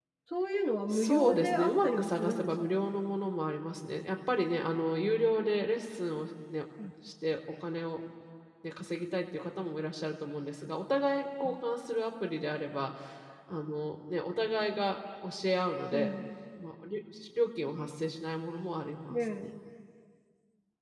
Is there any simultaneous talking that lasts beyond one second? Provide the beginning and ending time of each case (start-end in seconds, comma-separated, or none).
0.9-2.8